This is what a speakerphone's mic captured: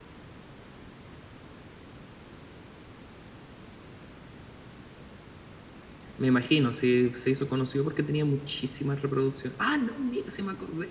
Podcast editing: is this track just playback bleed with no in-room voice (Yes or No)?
No